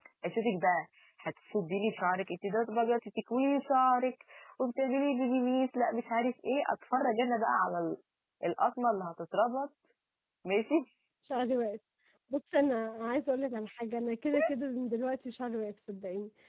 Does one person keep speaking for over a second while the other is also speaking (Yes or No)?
No